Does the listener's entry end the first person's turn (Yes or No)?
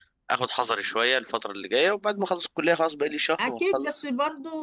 Yes